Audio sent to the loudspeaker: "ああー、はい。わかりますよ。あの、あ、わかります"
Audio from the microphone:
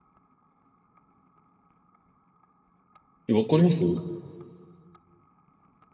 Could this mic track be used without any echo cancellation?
Yes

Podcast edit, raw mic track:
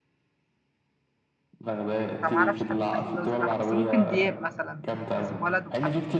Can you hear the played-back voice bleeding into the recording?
Yes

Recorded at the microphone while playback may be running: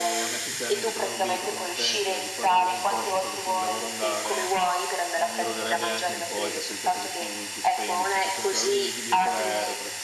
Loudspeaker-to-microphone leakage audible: Yes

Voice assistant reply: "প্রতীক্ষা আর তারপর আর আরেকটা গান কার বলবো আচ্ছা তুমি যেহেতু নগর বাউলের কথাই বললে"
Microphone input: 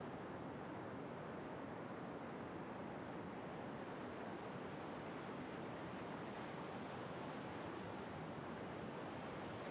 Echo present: No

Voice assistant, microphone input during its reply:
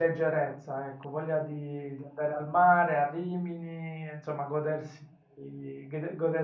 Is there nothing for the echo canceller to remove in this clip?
Yes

